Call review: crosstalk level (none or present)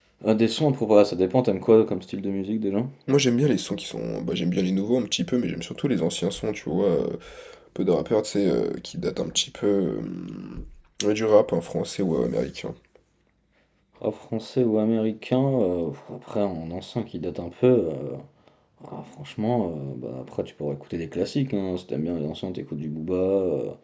none